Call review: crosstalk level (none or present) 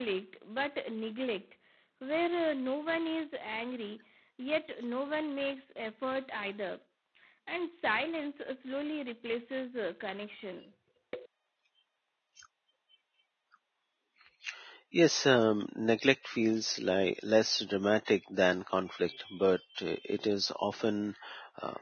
none